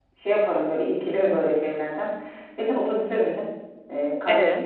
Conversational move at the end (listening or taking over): listening